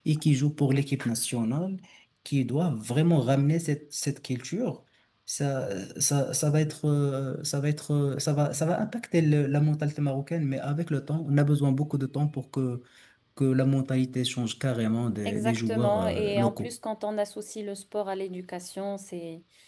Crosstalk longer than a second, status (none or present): present